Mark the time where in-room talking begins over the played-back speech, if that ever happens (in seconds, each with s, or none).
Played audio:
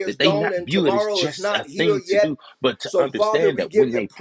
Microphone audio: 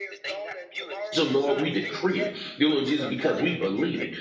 1.1 s